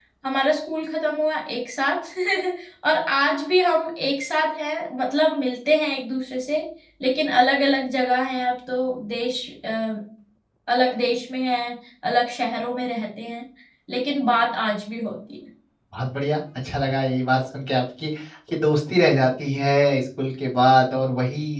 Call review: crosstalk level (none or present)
none